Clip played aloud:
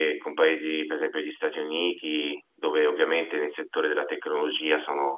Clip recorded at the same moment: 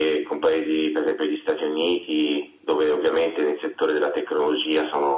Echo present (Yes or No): Yes